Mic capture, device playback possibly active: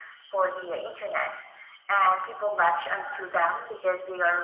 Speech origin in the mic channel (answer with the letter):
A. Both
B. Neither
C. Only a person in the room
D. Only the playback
D